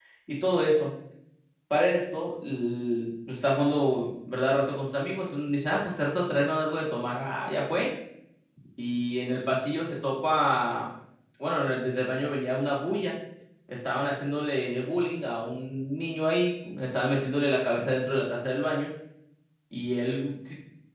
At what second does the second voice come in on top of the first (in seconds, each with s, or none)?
none